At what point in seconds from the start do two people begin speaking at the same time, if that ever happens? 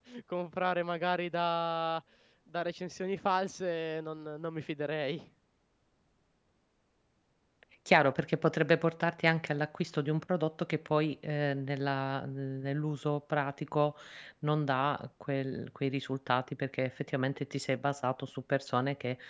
none

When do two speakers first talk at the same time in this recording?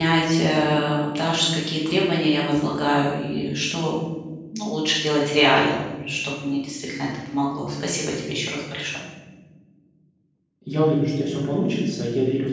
none

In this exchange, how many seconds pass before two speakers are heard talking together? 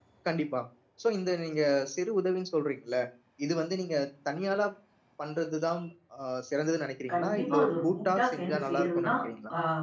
7.1 s

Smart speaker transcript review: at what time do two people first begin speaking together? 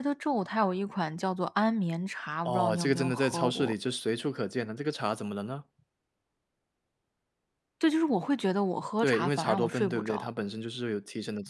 2.5 s

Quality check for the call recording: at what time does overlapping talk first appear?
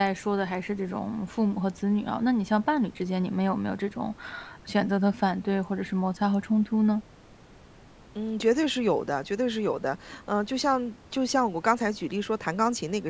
none

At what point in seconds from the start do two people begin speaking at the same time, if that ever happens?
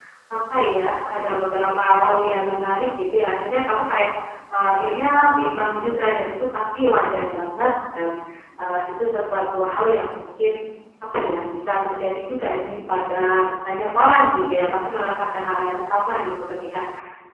none

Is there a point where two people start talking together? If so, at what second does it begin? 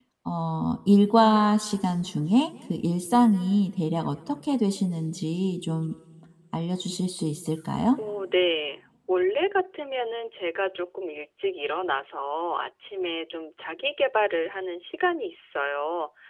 none

